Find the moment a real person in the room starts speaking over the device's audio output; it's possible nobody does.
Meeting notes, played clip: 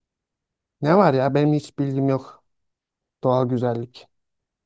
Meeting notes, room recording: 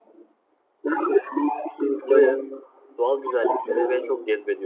2.0 s

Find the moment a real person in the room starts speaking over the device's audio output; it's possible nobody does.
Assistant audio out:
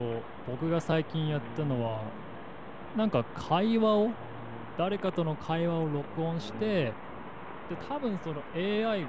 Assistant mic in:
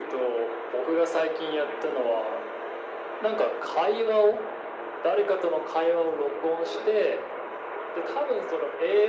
none

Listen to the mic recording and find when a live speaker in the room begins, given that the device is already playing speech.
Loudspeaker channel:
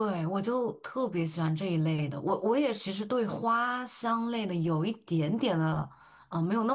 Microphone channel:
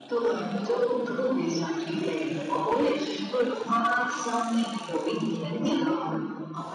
none

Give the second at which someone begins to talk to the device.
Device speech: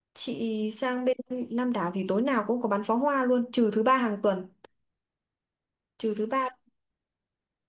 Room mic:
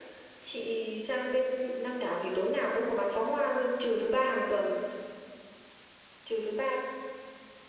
none

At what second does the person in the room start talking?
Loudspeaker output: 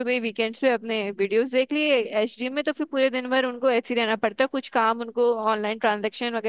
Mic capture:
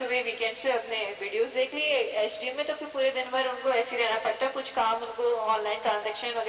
none

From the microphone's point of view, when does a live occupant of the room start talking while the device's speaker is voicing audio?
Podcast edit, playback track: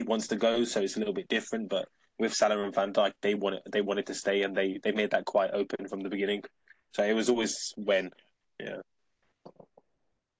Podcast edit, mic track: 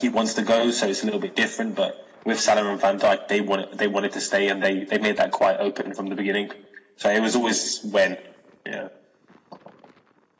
none

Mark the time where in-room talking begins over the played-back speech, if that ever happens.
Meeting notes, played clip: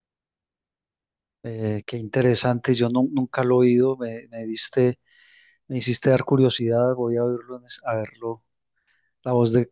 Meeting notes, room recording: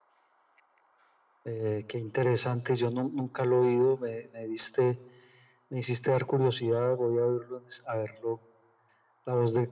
none

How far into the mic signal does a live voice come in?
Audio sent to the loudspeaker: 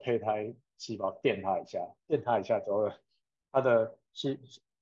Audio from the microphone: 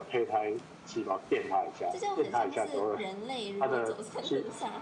1.9 s

